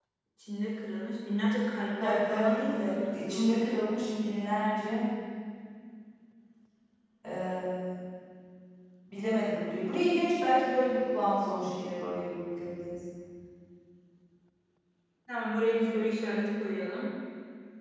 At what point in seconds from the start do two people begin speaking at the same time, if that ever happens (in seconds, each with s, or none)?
2.0 s